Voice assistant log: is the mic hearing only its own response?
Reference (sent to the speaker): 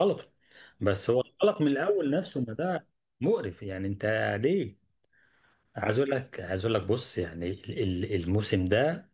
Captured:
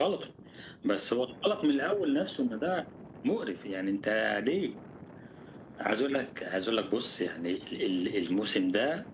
Yes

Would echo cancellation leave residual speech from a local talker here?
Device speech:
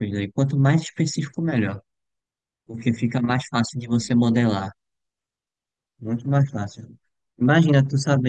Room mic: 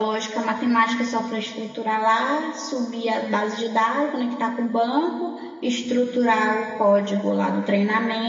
Yes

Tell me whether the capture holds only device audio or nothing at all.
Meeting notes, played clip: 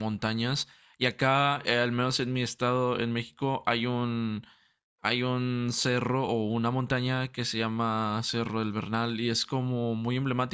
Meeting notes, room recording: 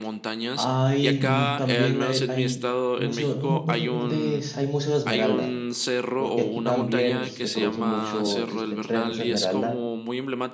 No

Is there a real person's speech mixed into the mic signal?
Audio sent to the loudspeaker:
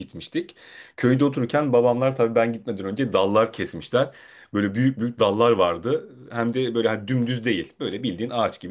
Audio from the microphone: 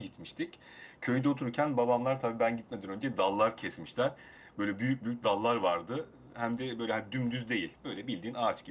No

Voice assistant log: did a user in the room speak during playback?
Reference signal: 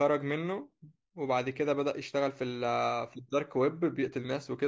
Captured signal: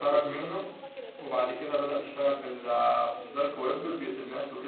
Yes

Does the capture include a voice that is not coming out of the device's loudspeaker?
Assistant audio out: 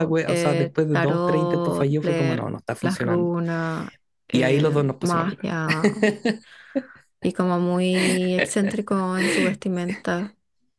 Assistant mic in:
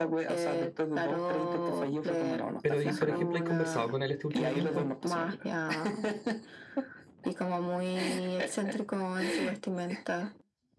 Yes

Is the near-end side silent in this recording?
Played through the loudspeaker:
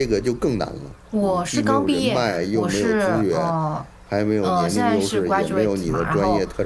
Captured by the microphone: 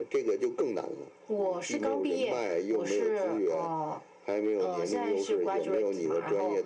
Yes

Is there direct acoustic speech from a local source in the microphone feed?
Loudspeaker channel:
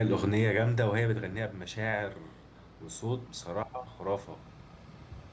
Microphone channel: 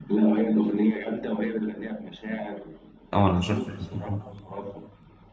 Yes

